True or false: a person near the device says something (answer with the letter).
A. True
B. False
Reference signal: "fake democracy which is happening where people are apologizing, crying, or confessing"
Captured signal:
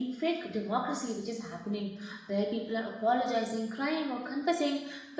B